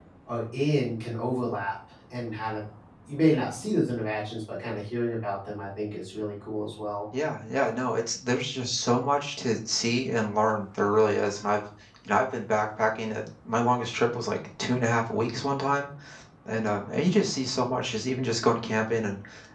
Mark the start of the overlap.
none

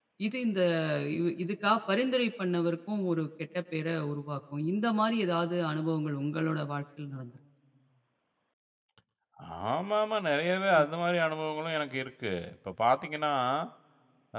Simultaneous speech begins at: none

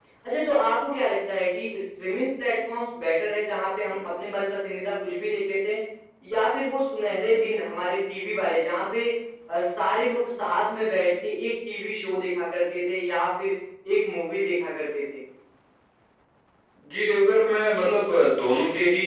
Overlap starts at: none

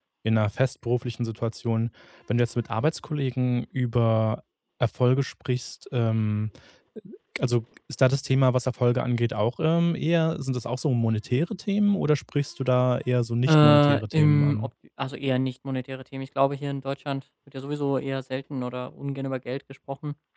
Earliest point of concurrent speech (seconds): 13.5 s

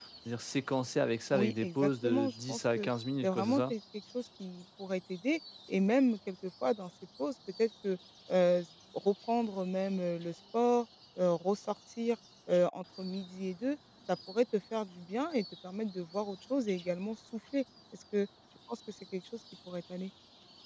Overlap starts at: 1.3 s

